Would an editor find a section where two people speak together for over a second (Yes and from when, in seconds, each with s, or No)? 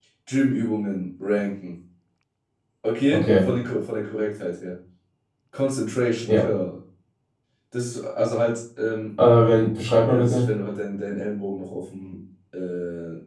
No